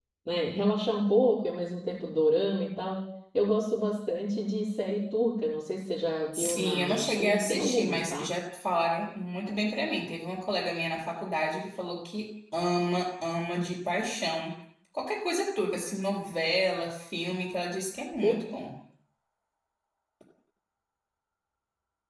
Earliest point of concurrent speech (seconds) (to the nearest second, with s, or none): 6 s